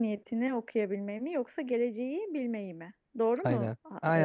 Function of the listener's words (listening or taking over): taking over